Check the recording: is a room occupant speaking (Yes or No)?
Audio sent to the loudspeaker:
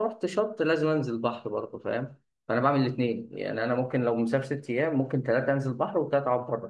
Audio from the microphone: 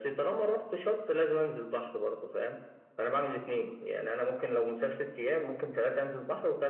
No